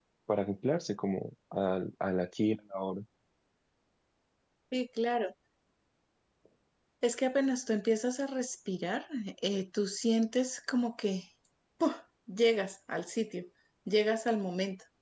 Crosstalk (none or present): none